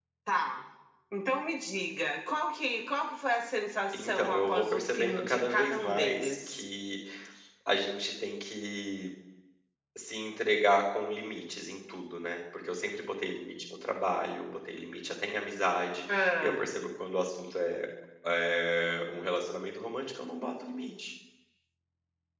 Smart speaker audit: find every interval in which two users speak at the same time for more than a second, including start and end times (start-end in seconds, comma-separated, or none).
3.9-6.6